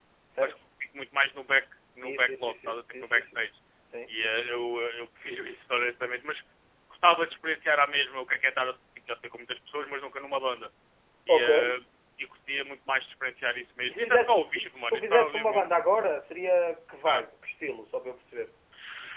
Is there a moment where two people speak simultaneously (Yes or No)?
Yes